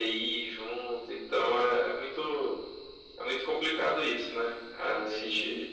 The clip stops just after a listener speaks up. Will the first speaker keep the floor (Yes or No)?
Yes